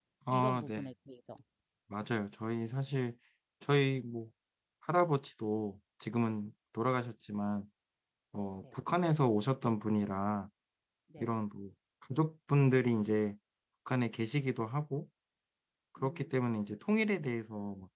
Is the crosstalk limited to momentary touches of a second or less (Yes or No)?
Yes